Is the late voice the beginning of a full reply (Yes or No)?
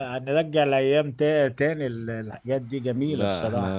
Yes